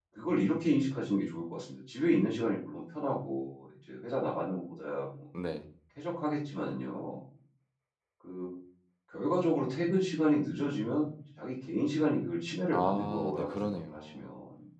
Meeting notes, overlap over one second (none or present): present